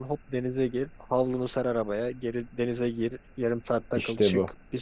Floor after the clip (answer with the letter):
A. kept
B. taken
A